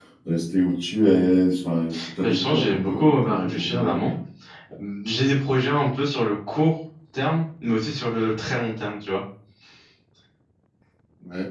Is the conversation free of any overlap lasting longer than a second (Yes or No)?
No